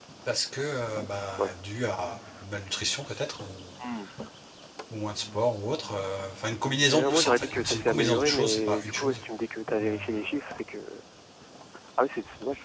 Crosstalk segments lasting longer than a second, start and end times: 6.8-9.2

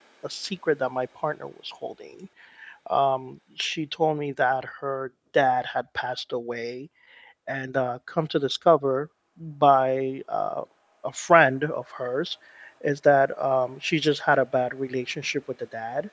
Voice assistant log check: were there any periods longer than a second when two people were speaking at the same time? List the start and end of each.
none

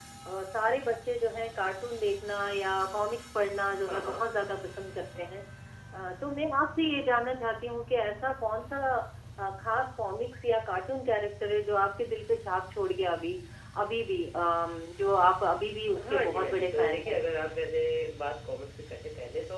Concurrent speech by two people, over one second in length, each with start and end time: 16.0-17.2

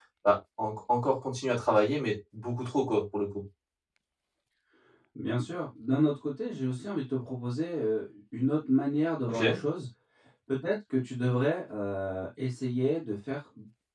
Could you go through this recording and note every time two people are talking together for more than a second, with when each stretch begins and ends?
none

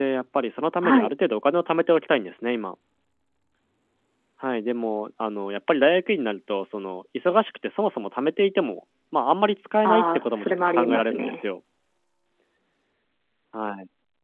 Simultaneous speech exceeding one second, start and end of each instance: 9.8-11.4

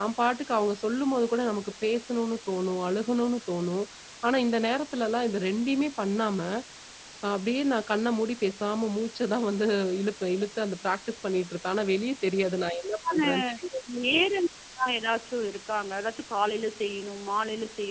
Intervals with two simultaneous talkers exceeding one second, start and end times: none

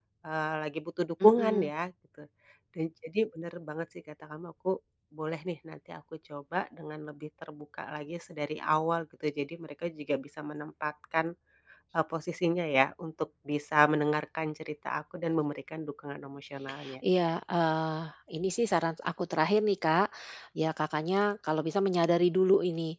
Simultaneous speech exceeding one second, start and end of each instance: none

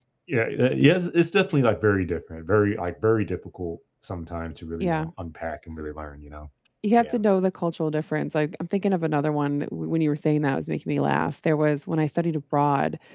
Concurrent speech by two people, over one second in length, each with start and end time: none

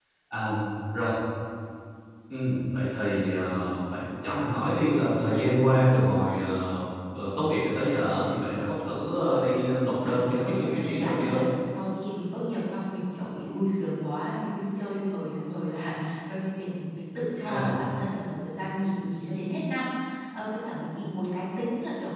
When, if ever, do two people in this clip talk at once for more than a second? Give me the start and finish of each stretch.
10.0-11.4

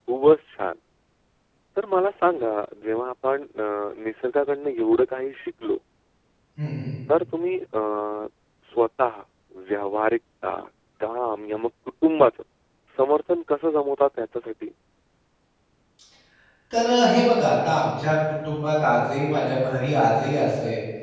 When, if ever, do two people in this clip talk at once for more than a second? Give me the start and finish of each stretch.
none

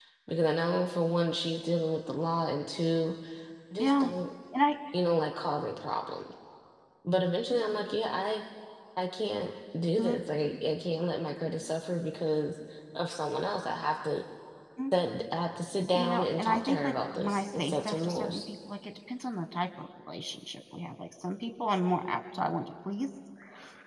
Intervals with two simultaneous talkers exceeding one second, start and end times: 15.9-18.4

